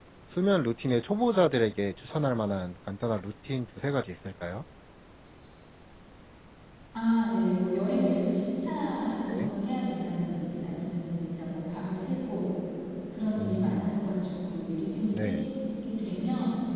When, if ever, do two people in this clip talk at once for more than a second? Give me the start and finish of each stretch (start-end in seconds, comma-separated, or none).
none